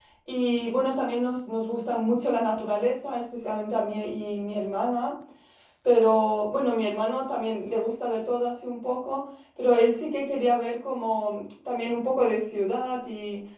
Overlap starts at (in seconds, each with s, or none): none